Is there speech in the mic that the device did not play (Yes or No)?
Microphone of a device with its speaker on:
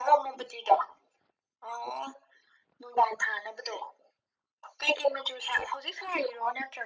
No